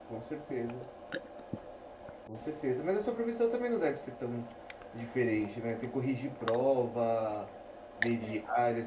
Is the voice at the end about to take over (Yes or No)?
No